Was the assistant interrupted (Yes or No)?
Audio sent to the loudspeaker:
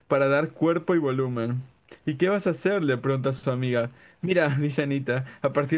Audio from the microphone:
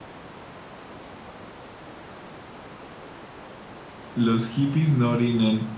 Yes